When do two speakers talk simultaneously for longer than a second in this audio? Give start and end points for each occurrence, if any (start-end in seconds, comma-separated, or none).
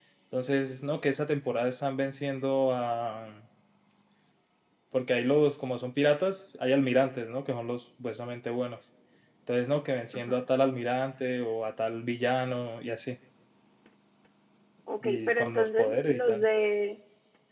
15.0-16.4